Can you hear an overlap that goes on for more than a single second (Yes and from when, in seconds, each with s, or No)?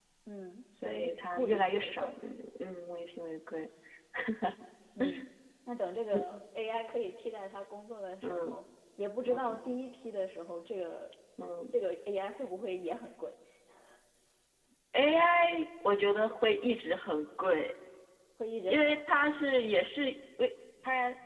Yes, from 0.8 s